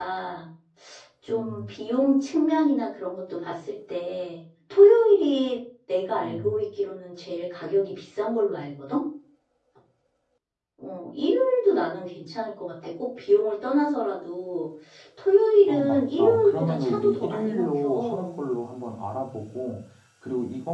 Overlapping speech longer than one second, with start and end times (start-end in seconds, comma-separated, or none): 15.7-18.3